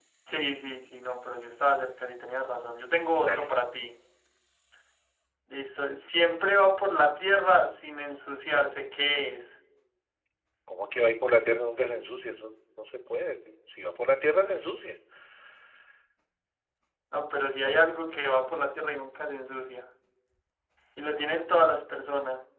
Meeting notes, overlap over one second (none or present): none